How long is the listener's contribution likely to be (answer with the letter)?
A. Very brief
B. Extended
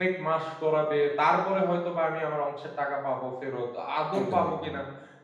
A